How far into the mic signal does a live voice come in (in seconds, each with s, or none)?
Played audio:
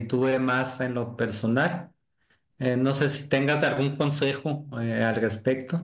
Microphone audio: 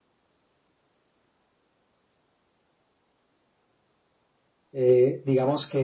4.7 s